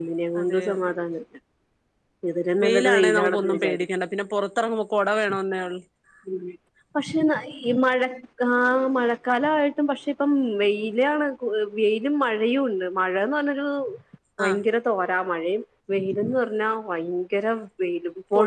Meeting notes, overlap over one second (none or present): present